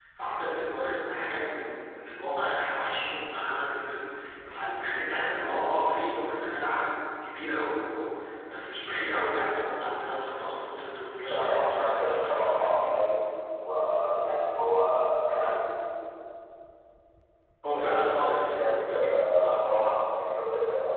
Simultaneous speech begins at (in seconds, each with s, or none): 11.3 s